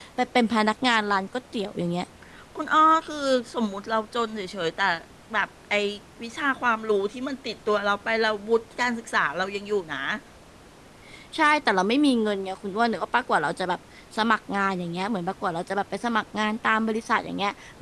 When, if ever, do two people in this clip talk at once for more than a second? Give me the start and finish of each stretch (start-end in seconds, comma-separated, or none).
none